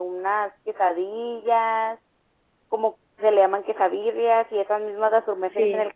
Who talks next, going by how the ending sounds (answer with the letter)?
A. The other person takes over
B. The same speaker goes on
B